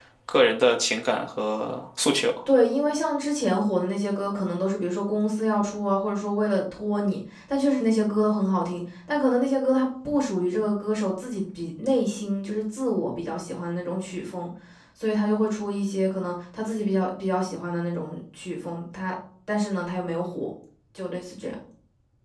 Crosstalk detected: No

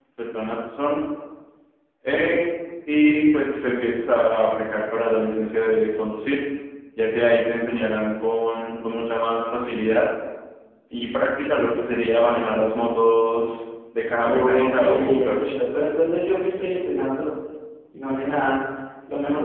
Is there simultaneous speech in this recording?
Yes, from 14.2 s

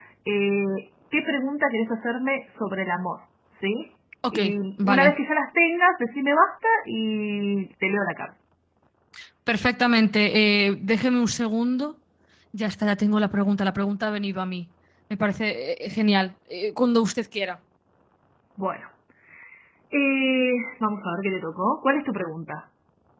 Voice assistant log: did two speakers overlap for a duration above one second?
No

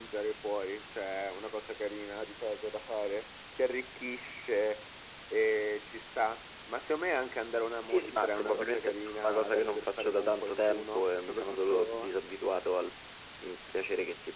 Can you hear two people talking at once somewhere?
Yes, from 7.9 s

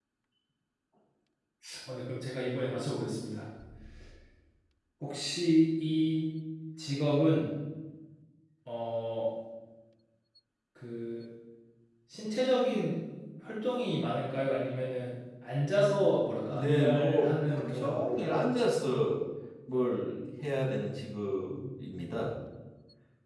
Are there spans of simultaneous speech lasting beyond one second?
Yes, from 16.5 s

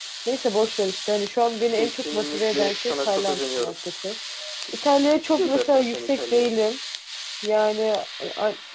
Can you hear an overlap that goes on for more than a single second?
Yes, from 1.7 s

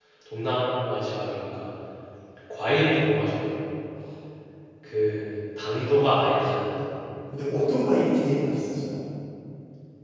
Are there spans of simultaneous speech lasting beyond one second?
No

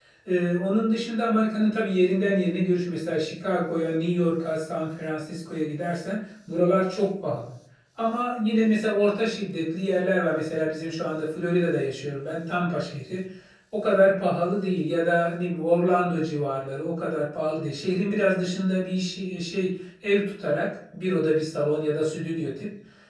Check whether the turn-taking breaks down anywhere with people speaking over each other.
No

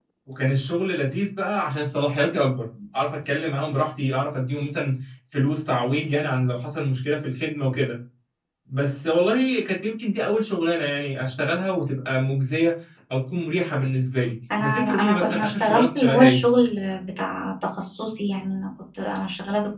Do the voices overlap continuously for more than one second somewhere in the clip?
Yes, from 14.5 s

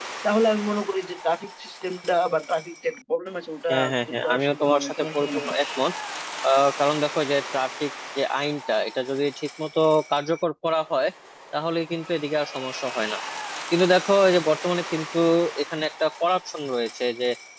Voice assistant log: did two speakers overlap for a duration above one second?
Yes, from 3.7 s

